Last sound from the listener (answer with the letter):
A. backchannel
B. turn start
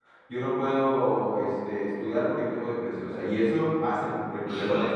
B